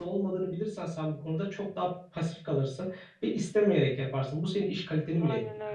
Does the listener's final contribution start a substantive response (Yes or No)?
Yes